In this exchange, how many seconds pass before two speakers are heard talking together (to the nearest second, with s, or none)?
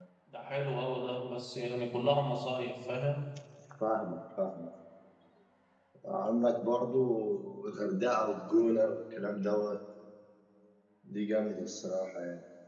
none